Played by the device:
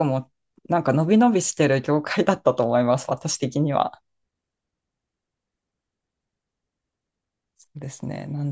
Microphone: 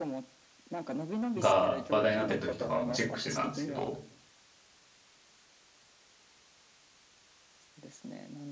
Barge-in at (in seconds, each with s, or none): 1.4 s